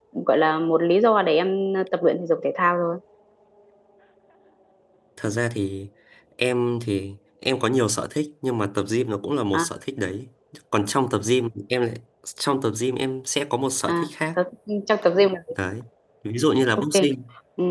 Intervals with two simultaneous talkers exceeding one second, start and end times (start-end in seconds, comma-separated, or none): none